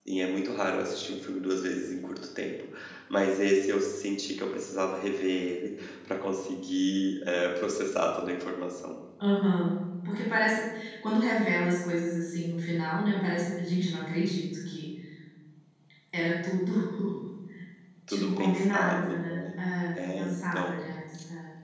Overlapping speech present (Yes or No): Yes